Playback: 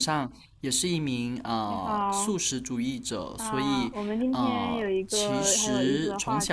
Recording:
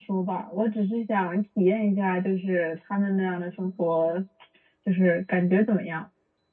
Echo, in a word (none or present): none